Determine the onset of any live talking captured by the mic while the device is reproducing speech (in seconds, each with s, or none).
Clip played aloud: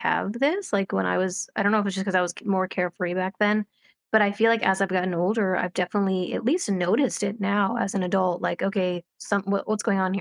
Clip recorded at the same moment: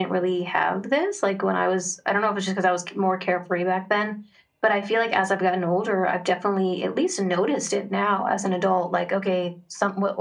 none